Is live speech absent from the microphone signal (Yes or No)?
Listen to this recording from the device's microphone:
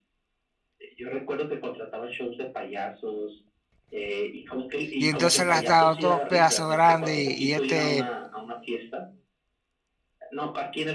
No